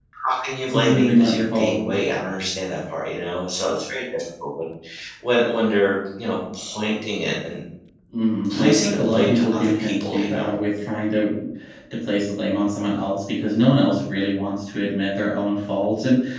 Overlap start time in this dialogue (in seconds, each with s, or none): 0.6 s